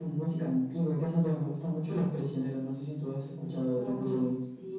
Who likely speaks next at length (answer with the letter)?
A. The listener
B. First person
A